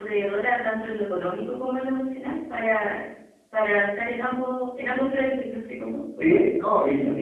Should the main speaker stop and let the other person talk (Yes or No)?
Yes